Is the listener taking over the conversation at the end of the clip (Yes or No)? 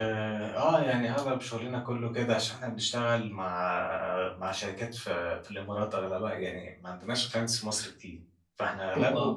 No